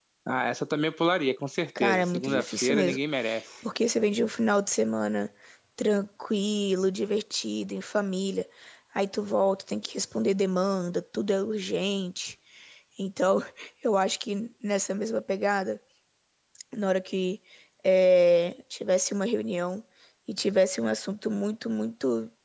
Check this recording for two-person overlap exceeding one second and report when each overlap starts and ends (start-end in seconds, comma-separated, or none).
1.8-3.0